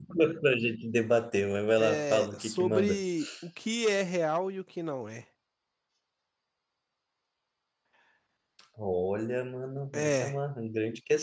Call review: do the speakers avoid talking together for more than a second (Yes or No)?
No